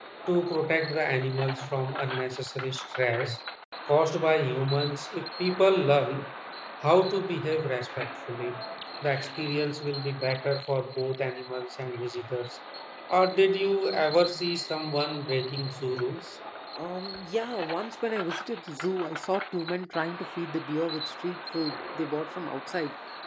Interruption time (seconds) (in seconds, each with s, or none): none